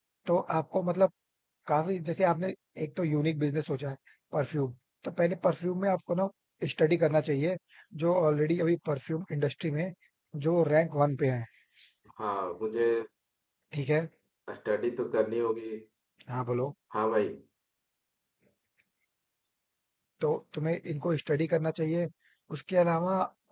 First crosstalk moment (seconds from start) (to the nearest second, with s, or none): none